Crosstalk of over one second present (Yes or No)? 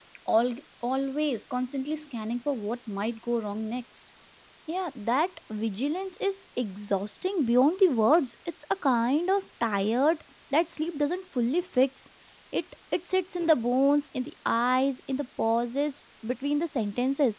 No